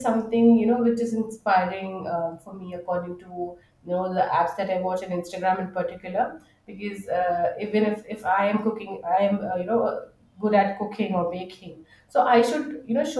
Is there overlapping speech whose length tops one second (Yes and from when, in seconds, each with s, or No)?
No